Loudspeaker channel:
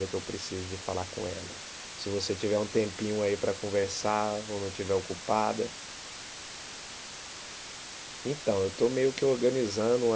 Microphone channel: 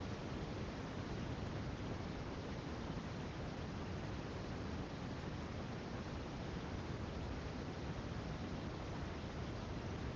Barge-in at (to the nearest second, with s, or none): none